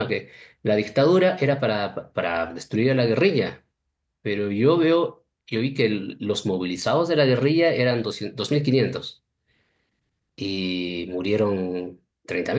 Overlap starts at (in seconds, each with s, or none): none